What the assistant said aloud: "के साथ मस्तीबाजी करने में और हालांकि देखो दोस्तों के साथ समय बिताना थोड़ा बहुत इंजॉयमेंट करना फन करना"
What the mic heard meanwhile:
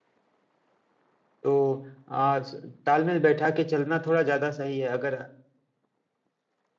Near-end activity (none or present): present